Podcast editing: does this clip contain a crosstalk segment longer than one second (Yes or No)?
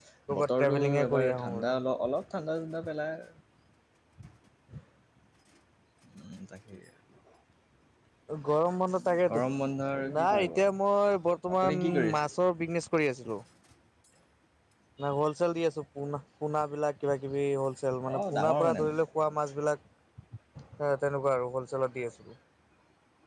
Yes